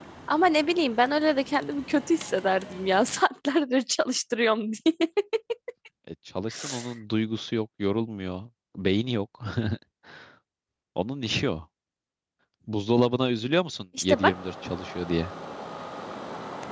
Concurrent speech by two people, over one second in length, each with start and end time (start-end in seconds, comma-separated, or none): none